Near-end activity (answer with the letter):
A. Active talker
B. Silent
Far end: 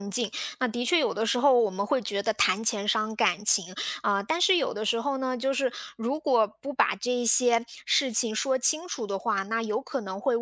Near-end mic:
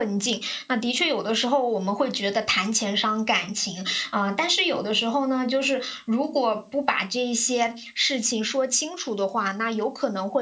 B